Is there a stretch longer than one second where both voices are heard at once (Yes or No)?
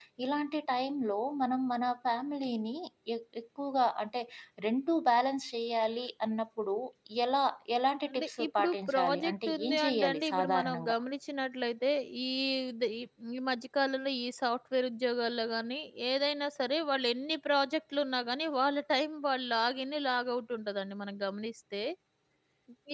Yes